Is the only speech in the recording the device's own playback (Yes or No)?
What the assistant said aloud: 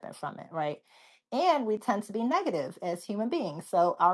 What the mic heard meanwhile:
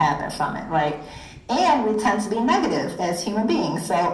Yes